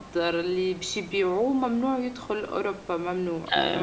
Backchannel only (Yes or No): No